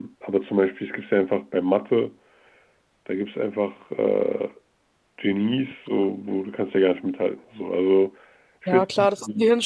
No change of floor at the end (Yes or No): No